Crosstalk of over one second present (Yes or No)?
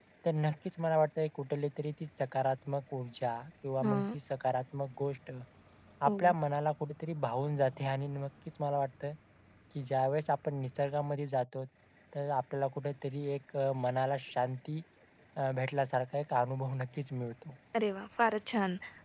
No